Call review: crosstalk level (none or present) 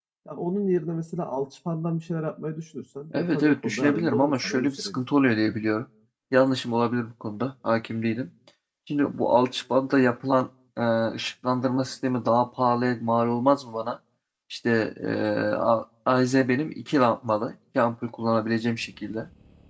present